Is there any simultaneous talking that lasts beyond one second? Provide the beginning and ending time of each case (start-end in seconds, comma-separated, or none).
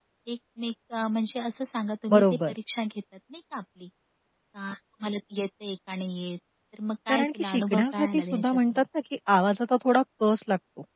7.1-8.8